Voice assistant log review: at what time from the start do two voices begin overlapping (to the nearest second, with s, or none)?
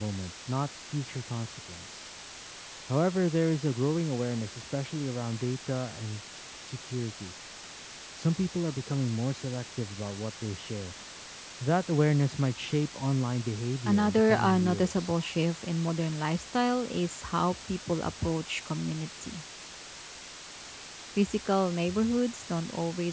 14 s